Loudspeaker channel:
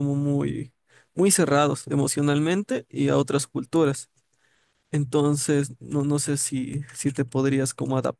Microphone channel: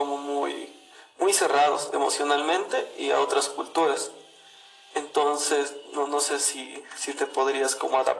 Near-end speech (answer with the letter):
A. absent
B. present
A